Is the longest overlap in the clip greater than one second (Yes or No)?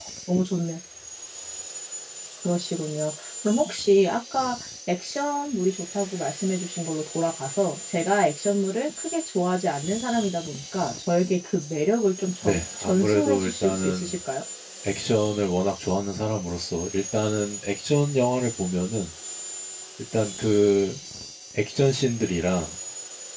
Yes